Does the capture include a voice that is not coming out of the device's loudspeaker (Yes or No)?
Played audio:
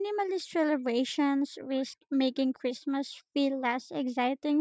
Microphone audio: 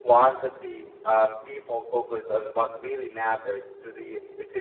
Yes